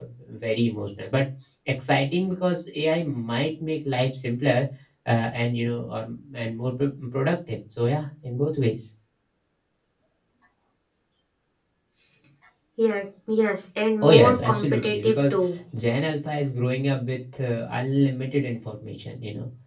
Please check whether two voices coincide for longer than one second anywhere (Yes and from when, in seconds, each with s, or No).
Yes, from 14.0 s